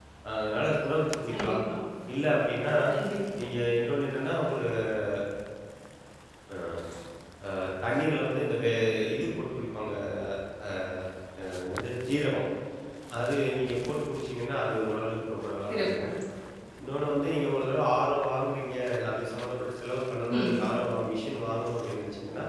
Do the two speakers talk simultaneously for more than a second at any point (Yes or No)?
No